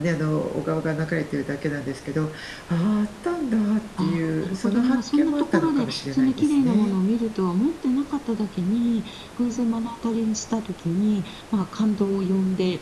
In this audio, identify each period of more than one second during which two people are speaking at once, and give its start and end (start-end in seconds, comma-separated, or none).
4.0-6.9